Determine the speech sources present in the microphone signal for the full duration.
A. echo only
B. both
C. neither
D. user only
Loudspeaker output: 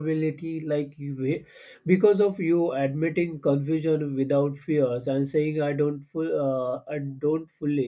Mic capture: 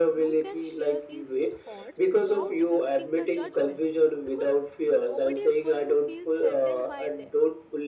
B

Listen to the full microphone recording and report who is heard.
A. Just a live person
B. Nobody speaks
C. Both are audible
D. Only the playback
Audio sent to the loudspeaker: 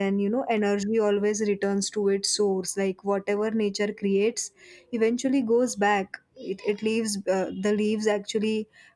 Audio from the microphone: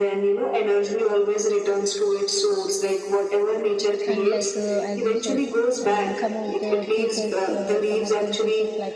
C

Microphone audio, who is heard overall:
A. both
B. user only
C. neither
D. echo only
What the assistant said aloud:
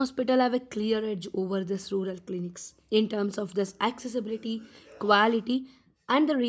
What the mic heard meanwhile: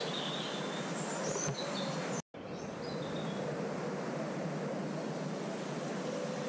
C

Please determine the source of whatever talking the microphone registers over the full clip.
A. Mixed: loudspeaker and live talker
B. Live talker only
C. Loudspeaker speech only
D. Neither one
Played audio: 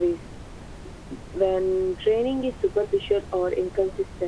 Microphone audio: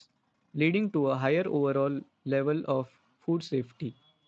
B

